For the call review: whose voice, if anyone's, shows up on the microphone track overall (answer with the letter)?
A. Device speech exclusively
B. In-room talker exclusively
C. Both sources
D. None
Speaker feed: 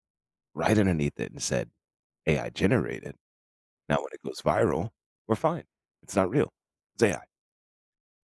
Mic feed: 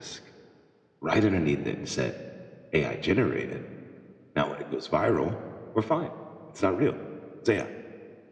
A